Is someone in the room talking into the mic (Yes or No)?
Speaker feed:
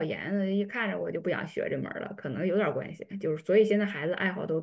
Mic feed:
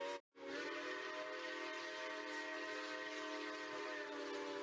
No